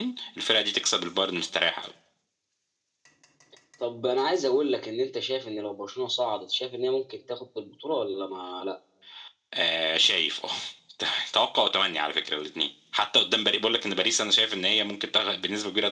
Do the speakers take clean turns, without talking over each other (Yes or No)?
Yes